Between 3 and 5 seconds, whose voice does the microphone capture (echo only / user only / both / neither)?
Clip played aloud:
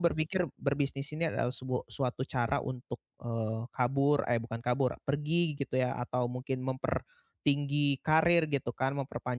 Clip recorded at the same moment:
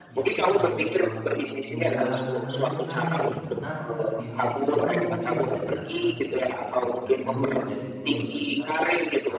both